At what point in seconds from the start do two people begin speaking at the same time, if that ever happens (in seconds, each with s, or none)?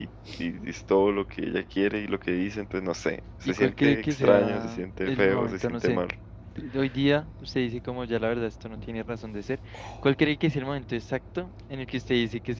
3.4 s